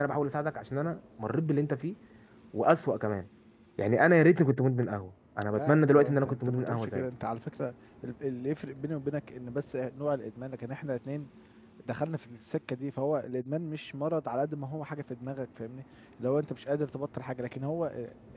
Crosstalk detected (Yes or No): Yes